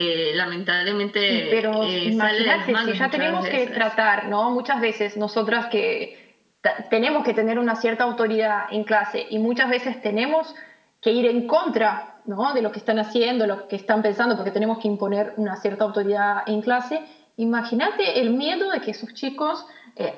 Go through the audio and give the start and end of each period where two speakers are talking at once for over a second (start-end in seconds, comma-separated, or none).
1.3-3.9